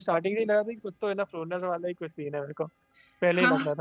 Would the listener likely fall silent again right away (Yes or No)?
No